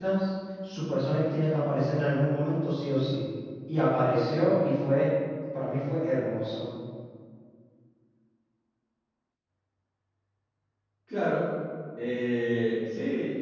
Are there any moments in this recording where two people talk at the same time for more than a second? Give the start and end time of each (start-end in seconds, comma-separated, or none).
none